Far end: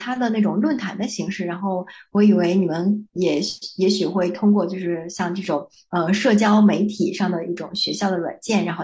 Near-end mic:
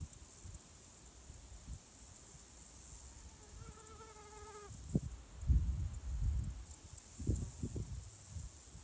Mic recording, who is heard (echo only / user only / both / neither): neither